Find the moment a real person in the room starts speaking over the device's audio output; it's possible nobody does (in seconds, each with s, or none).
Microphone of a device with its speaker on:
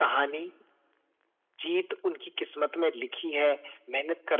none